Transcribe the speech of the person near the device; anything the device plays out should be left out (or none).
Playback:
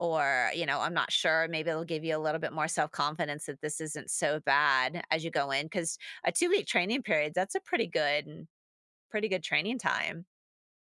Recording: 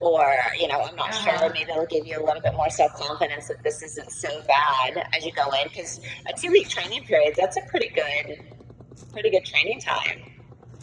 Uh huh.